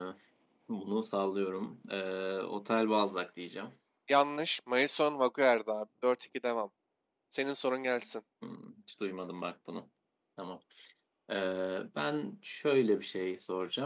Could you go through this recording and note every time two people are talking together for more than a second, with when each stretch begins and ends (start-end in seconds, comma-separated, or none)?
none